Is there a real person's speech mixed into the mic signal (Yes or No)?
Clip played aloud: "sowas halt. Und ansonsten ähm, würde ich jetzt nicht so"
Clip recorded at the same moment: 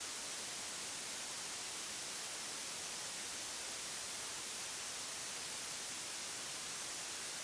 No